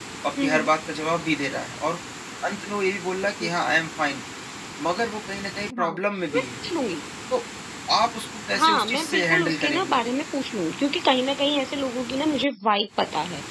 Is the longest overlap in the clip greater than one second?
Yes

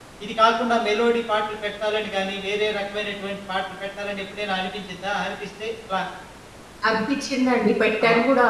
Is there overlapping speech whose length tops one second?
No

